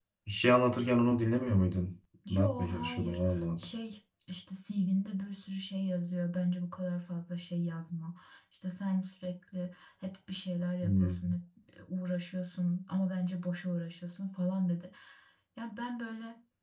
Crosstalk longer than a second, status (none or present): present